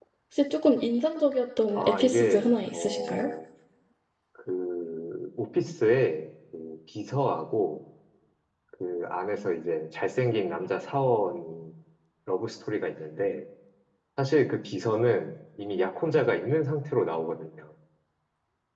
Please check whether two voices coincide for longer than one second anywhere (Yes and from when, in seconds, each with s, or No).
Yes, from 1.8 s